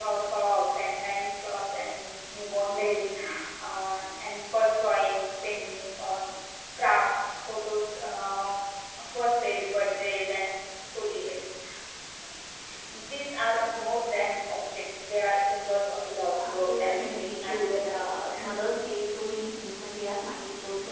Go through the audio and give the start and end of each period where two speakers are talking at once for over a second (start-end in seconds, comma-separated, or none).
16.4-18.2